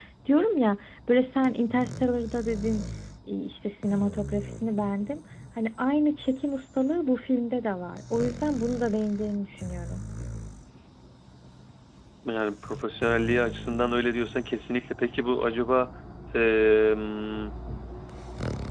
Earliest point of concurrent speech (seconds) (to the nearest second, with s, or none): none